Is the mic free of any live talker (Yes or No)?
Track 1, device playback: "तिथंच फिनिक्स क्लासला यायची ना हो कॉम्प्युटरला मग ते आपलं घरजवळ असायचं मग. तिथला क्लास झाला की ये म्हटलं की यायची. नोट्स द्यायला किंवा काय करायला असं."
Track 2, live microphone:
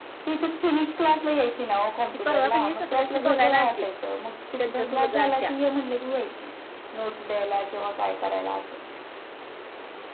No